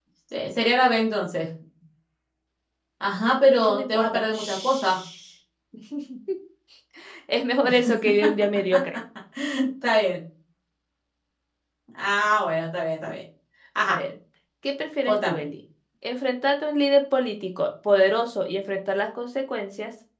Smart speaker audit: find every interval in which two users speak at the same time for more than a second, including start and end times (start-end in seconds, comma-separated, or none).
3.6-5.0